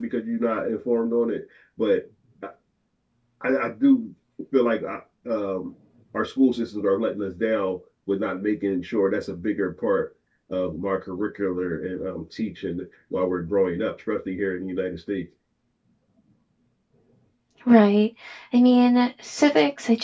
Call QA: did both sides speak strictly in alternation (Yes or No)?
Yes